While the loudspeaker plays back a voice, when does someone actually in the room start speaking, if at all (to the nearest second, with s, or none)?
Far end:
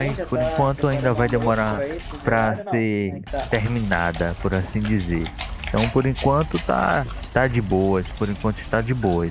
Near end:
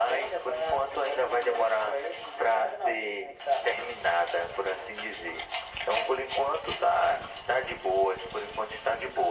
none